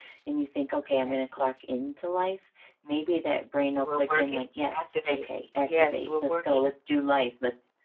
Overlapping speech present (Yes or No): Yes